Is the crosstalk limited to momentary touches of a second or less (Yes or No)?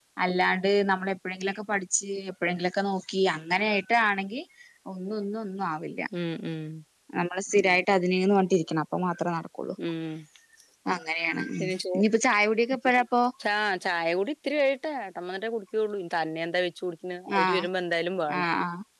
Yes